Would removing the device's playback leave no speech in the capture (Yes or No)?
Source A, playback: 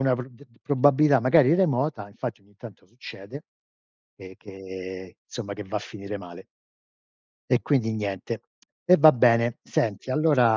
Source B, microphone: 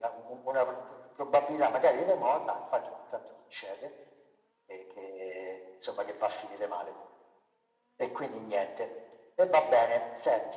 Yes